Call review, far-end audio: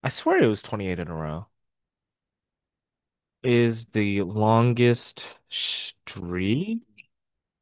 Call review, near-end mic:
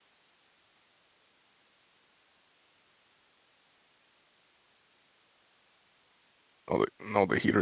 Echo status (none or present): none